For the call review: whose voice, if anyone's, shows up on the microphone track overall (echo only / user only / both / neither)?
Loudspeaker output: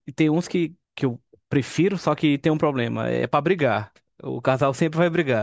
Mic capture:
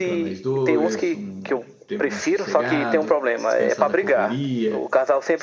both